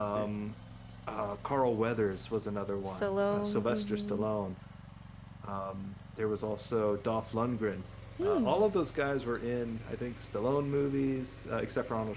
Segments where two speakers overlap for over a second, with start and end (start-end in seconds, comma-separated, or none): 3.0-4.2